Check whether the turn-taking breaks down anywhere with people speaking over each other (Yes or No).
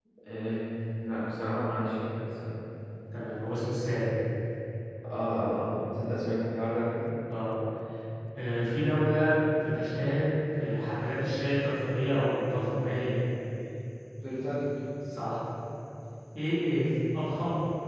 No